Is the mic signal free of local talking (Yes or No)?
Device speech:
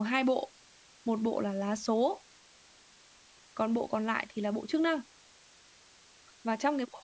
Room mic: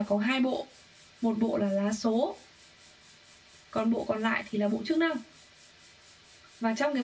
Yes